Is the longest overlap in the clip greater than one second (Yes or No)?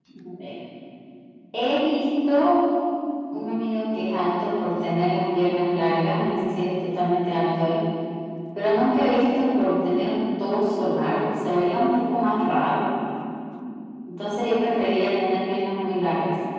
No